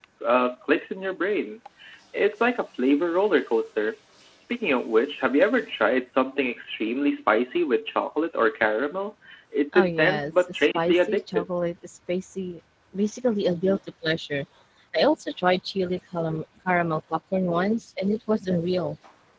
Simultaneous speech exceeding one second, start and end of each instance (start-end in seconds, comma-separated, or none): 9.7-11.4